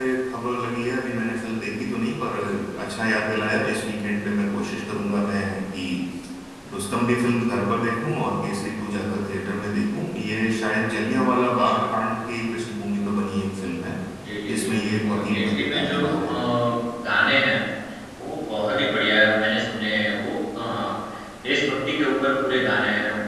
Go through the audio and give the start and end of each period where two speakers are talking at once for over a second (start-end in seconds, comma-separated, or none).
14.5-16.3